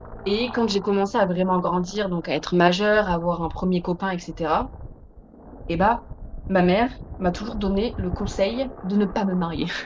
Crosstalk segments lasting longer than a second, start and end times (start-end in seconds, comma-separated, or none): none